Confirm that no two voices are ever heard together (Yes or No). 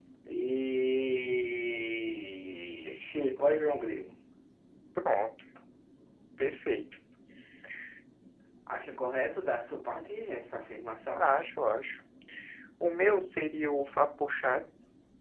Yes